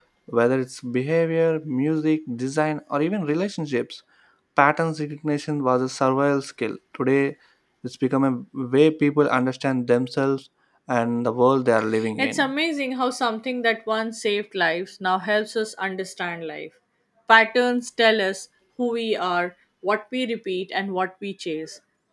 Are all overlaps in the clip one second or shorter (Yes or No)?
Yes